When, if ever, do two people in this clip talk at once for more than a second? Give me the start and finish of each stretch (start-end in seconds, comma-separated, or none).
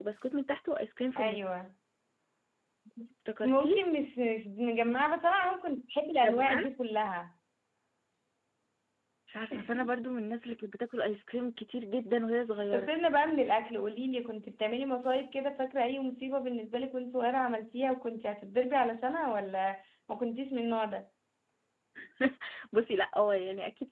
none